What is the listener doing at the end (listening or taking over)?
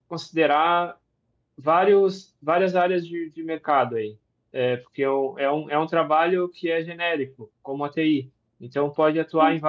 listening